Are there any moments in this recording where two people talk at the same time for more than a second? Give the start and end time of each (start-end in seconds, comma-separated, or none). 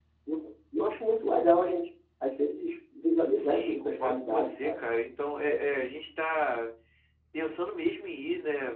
3.4-4.8